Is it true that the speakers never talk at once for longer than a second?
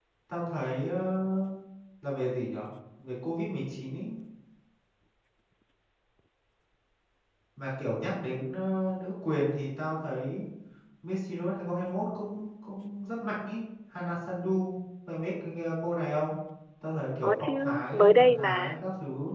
No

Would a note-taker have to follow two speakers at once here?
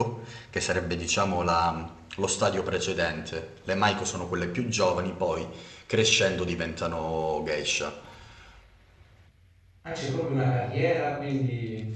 No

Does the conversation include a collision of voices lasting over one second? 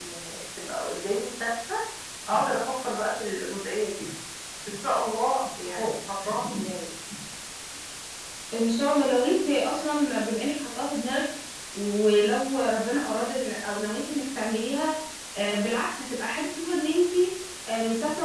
No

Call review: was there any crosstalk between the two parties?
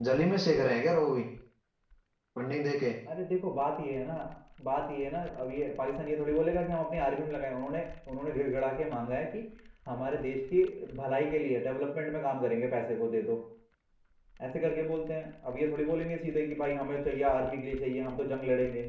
No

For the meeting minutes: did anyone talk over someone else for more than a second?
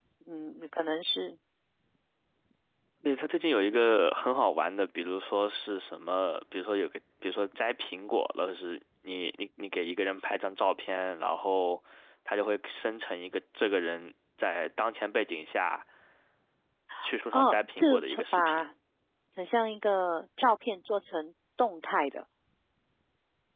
Yes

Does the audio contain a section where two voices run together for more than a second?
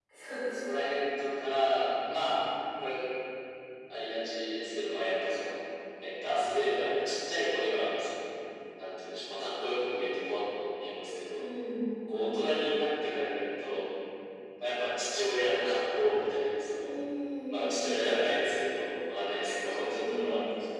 No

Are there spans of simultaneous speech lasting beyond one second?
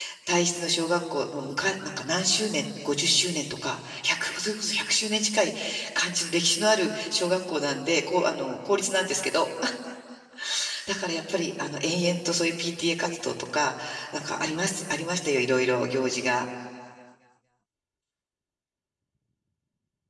No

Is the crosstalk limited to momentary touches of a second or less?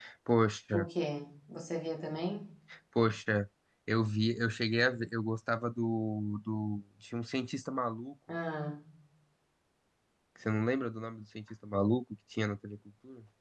Yes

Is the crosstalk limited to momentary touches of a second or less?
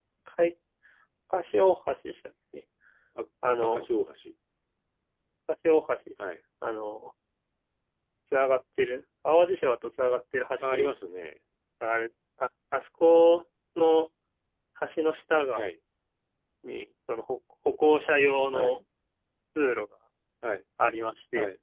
Yes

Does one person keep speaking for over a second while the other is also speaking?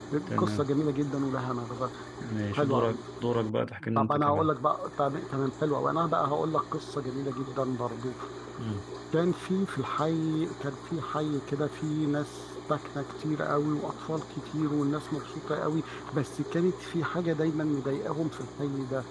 No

